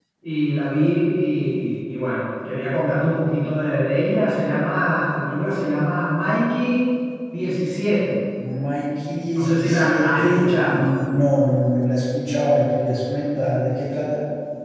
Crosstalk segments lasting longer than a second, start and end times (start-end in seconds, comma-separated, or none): 9.4-10.8